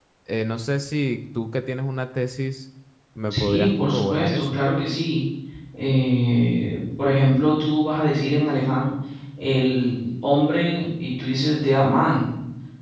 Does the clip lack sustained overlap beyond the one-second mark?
No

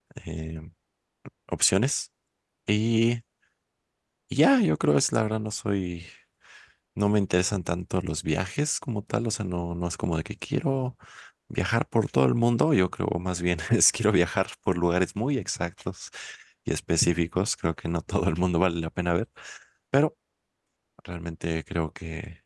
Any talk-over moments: No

